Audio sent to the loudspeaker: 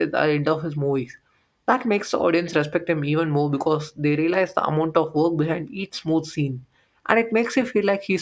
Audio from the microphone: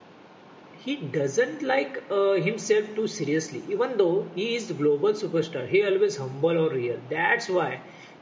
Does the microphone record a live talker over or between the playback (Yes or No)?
Yes